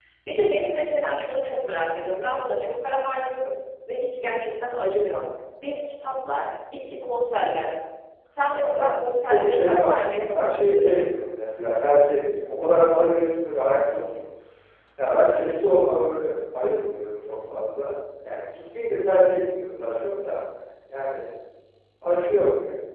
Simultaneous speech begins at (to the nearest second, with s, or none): 8 s